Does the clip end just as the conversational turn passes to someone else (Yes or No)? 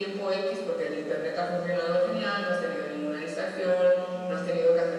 No